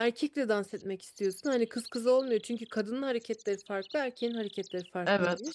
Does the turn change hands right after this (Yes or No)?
No